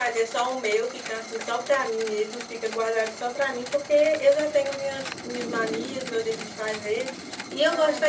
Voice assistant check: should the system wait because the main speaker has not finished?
Yes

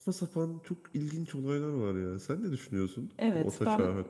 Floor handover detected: Yes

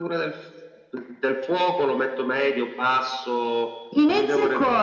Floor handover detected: Yes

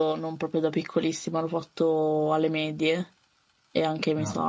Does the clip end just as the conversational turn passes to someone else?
No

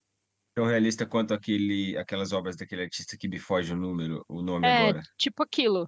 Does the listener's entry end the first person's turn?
Yes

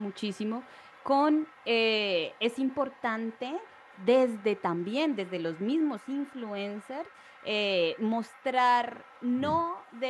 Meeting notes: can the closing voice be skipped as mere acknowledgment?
Yes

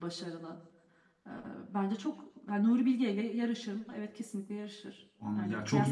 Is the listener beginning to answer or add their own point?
Yes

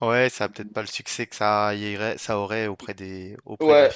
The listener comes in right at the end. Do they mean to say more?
Yes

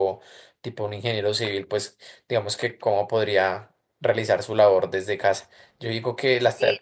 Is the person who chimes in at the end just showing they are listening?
Yes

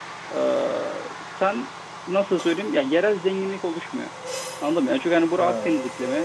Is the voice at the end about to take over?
No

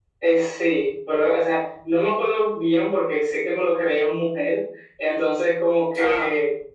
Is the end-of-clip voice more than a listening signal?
No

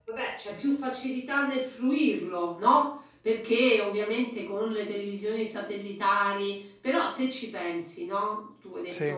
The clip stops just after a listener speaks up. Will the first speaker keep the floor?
Yes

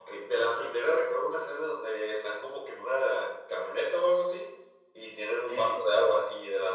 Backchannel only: Yes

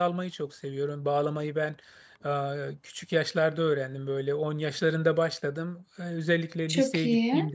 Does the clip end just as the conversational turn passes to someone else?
No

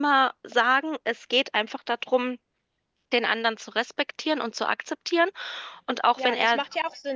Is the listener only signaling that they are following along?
No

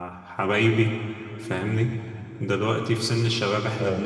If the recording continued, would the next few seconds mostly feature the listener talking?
No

